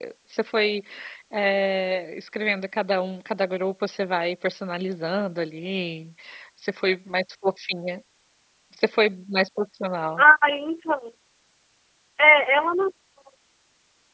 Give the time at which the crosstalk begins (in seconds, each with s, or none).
none